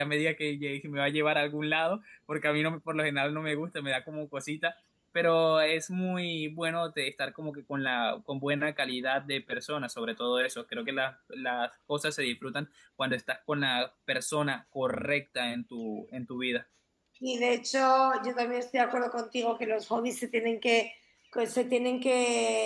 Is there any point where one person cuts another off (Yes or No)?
No